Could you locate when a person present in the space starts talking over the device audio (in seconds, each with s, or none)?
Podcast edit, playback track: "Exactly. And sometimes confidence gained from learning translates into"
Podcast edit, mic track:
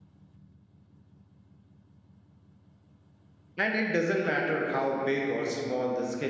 3.5 s